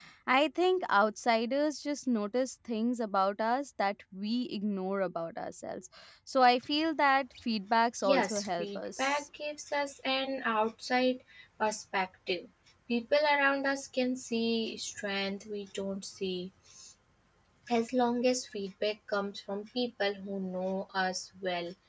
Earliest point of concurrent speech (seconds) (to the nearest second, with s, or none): 8 s